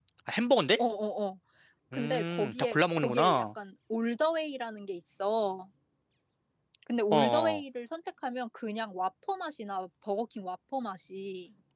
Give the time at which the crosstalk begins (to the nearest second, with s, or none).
2 s